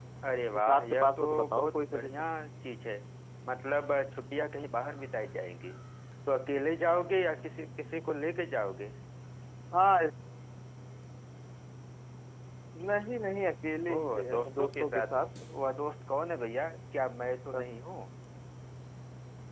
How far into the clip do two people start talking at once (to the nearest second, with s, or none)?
1 s